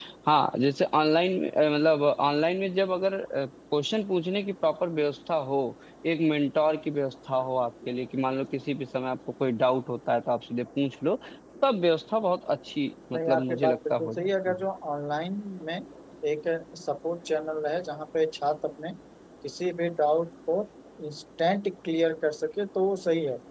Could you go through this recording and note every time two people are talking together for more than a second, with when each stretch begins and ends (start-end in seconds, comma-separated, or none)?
13.1-14.7